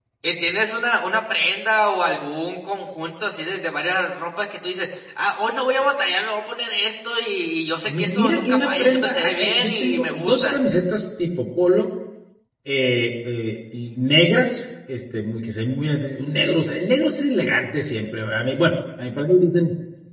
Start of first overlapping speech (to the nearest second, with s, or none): 8 s